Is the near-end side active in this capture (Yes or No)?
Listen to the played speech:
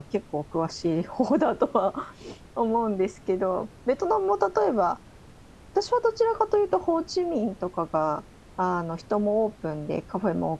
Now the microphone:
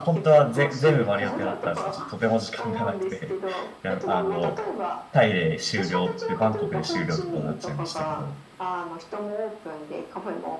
Yes